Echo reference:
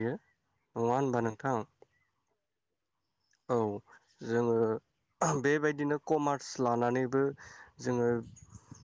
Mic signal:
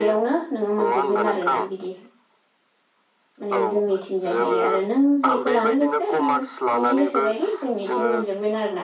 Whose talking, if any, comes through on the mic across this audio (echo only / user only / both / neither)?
both